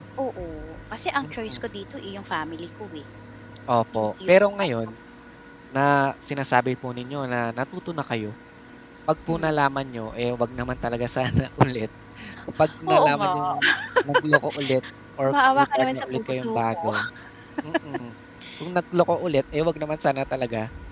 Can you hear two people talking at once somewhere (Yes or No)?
Yes